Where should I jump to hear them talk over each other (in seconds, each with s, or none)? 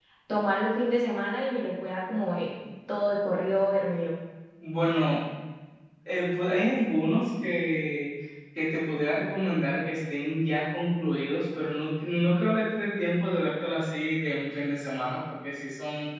none